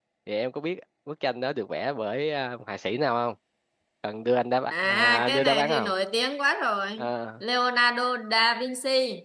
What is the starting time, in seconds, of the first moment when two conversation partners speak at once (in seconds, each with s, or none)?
4.7 s